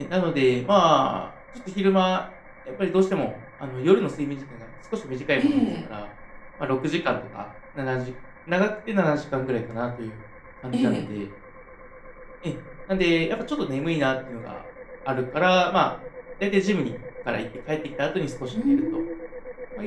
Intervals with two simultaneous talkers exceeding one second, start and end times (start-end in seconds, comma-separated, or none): none